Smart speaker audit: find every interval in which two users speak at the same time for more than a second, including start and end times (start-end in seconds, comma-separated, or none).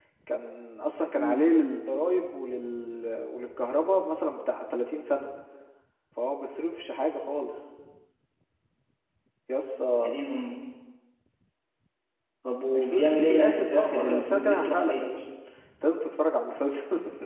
12.8-15.0